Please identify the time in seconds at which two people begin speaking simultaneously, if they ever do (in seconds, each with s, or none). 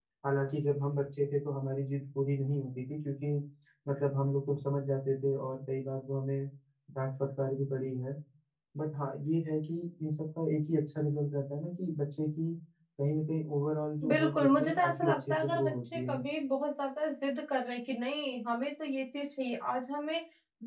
14.0 s